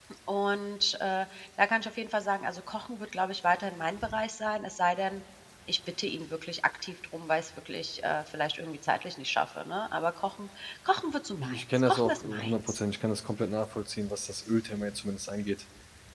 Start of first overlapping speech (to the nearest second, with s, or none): 11 s